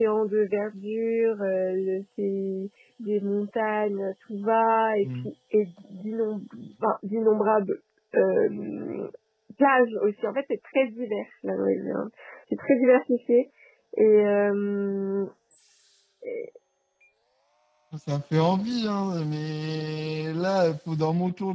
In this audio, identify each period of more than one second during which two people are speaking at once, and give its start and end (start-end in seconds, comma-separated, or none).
none